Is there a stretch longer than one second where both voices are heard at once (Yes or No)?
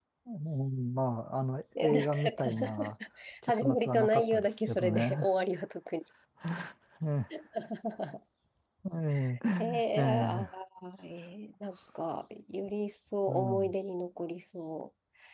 Yes